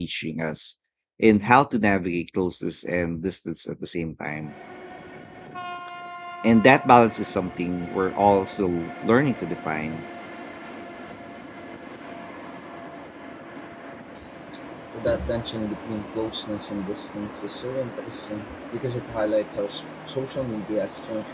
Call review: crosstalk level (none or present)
none